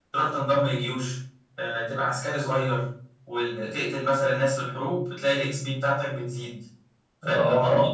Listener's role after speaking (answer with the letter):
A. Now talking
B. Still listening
B